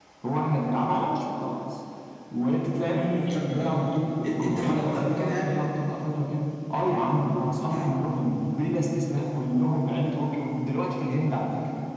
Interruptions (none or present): present